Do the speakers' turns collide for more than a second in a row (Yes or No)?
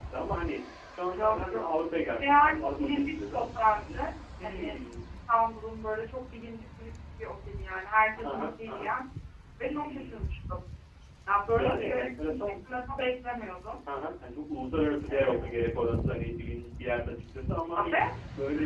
Yes